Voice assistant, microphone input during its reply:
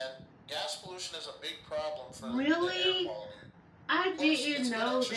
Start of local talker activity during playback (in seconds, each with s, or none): 2.2 s